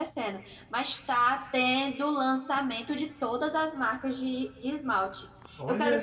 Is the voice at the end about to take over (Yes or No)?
No